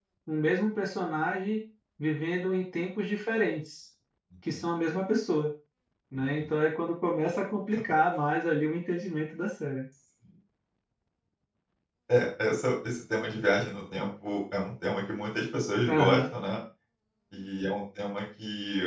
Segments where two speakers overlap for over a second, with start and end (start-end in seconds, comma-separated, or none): none